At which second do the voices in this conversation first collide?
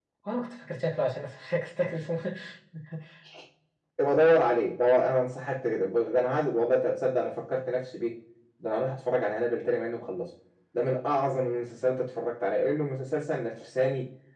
none

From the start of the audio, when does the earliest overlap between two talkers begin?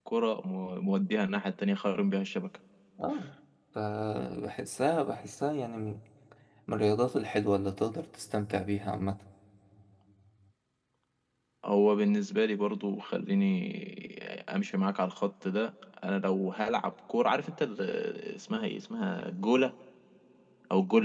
none

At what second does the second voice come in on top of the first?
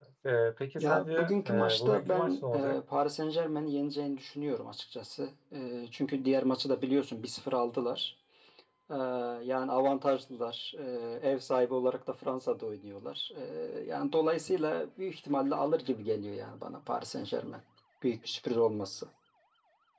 0.8 s

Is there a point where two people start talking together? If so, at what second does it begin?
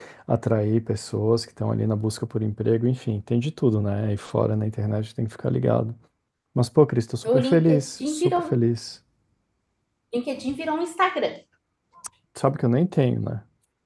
7.3 s

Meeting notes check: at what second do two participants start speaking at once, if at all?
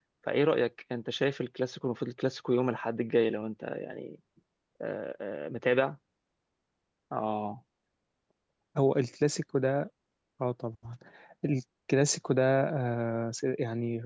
none

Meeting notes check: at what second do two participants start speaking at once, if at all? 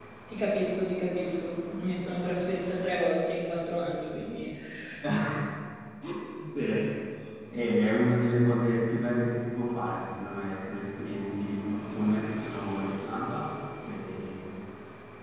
none

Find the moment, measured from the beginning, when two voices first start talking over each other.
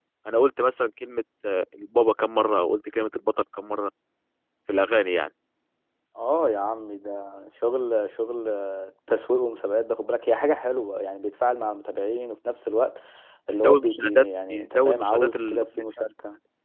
13.5 s

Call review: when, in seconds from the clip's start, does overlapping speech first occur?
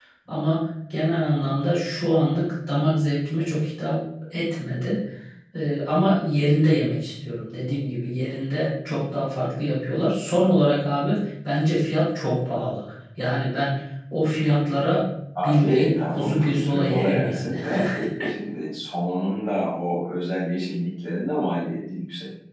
15.3 s

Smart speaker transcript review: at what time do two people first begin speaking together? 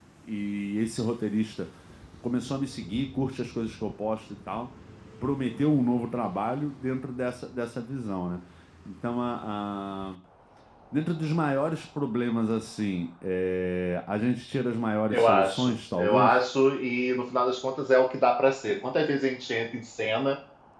15.1 s

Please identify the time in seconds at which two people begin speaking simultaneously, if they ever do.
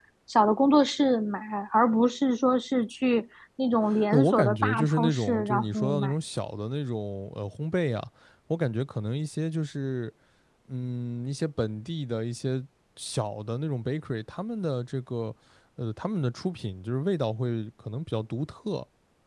3.9 s

